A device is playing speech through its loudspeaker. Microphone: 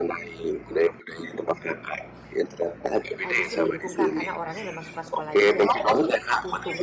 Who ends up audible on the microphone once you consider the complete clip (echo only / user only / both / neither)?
both